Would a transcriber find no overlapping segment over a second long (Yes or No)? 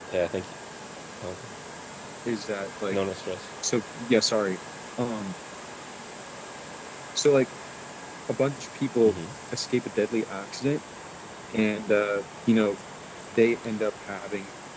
Yes